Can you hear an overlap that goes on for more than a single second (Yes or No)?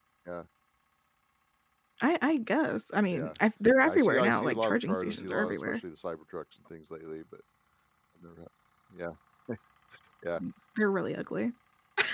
Yes